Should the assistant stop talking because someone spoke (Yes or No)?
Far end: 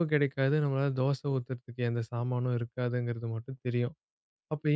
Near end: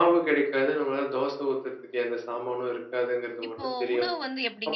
Yes